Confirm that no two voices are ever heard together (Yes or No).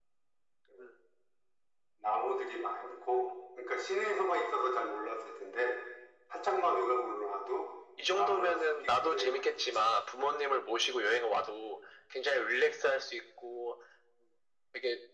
No